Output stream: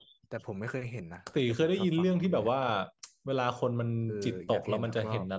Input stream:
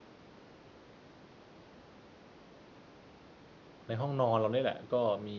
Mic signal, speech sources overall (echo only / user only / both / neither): user only